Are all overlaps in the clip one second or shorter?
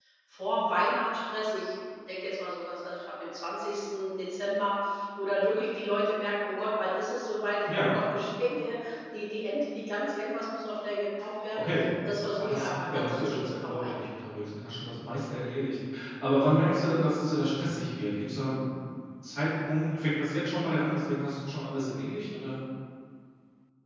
No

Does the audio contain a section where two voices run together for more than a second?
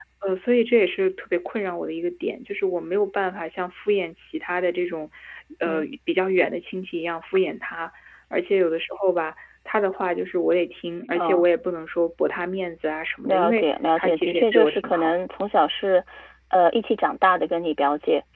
Yes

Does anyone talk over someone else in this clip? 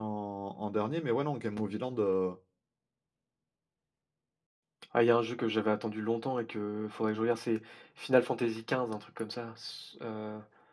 No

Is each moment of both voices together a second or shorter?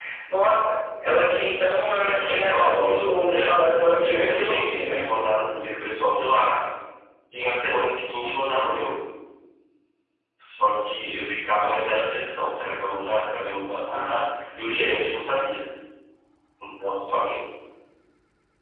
No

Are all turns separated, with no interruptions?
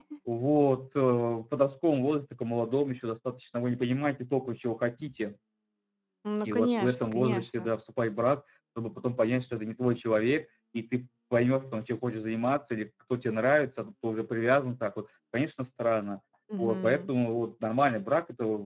No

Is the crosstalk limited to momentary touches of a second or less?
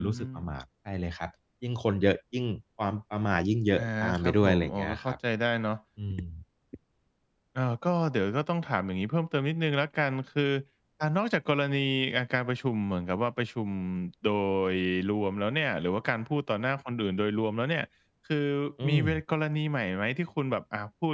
No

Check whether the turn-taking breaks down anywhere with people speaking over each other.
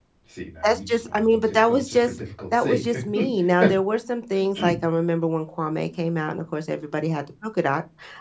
Yes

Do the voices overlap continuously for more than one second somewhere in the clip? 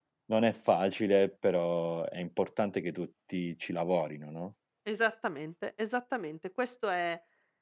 No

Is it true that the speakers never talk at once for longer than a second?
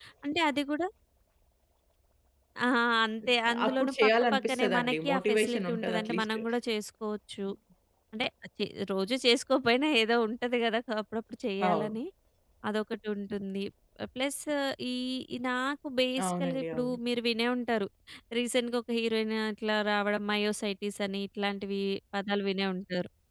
No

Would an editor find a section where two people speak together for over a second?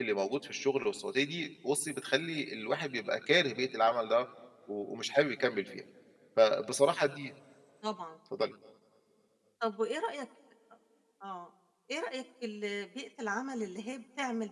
No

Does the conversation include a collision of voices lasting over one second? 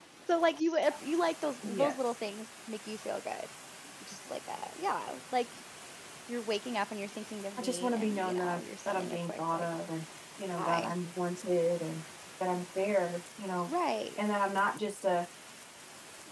Yes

